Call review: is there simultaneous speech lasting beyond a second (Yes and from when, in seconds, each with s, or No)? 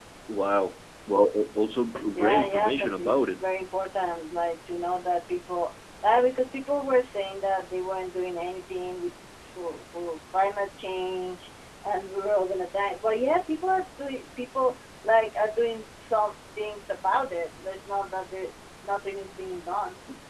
Yes, from 2.2 s